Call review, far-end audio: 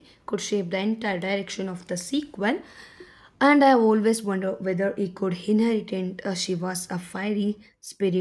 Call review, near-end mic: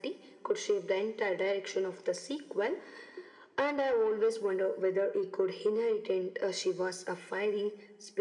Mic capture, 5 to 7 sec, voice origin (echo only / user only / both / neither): echo only